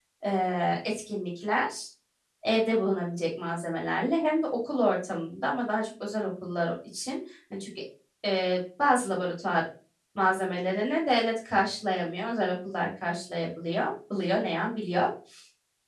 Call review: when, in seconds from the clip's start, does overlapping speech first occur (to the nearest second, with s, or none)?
none